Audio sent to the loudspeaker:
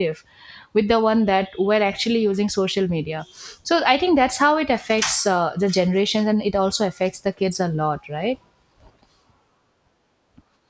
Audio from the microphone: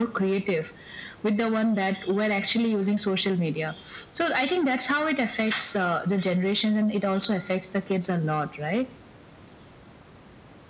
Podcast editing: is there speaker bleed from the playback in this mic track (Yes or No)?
Yes